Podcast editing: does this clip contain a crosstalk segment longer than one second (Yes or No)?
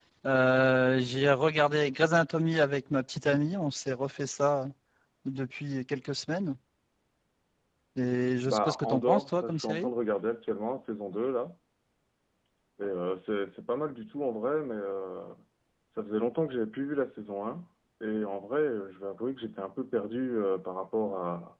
Yes